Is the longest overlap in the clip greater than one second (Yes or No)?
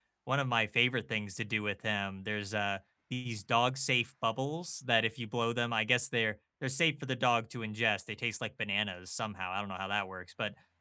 No